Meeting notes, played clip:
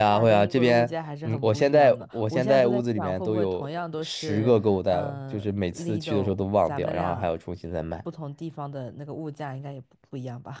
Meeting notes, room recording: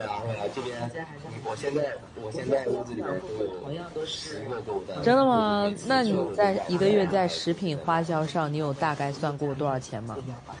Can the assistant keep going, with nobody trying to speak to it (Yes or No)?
No